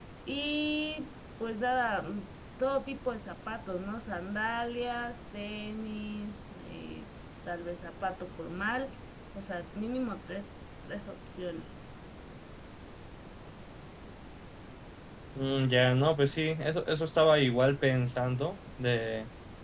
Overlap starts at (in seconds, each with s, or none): none